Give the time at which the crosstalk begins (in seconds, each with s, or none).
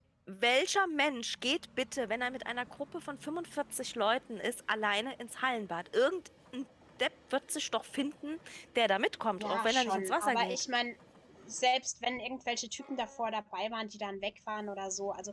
9.3 s